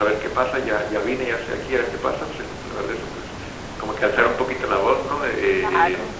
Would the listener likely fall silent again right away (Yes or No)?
Yes